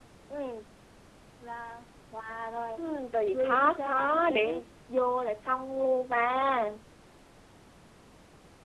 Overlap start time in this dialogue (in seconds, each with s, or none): 3.3 s